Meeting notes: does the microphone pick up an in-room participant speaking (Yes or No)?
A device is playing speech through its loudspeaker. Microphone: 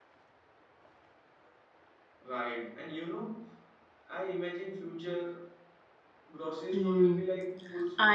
Yes